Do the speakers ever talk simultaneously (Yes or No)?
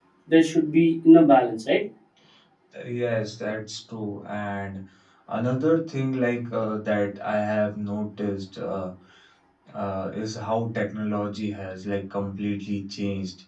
No